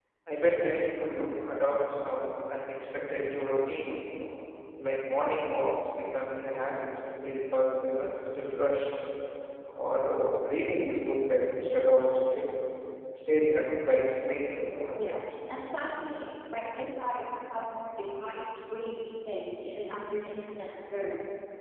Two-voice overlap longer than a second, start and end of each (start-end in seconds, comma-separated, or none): none